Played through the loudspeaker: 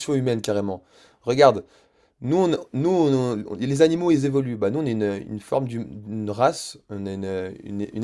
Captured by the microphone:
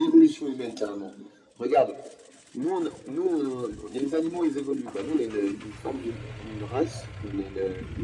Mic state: echo only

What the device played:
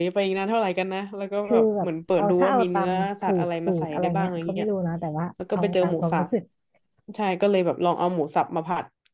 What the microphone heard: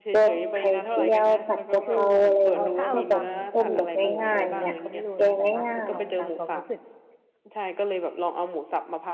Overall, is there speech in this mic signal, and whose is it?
both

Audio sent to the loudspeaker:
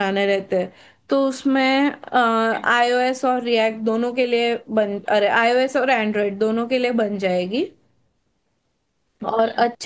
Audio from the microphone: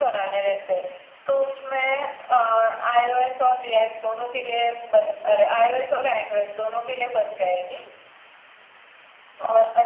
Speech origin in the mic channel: echo only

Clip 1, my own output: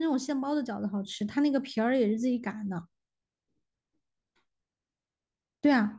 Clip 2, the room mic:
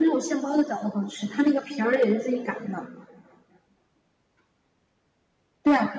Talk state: echo only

